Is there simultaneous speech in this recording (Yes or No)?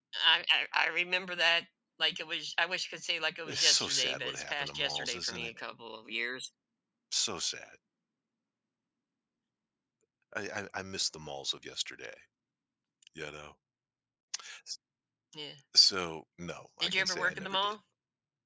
Yes